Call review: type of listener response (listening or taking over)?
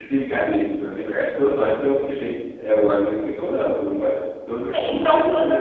taking over